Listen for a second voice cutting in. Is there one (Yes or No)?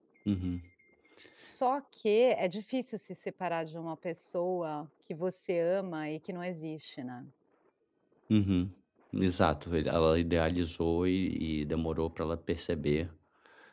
No